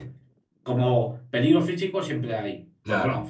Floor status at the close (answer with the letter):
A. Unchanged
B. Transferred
A